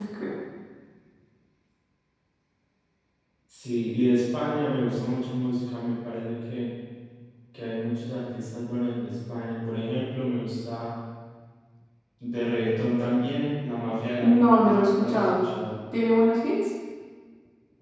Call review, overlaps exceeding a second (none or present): present